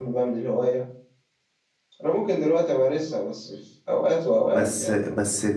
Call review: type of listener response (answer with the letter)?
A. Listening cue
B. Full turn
B